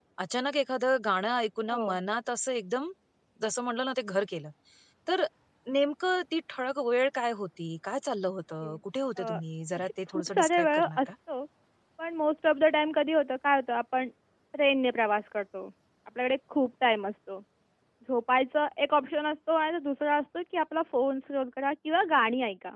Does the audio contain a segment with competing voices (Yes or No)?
Yes